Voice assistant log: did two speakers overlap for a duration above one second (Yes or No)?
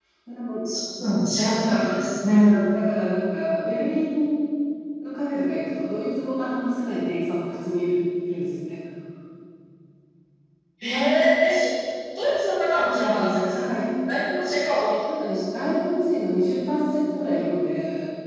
No